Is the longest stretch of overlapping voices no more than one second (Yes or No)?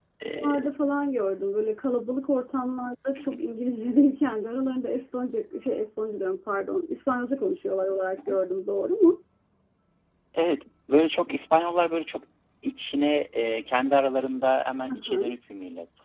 Yes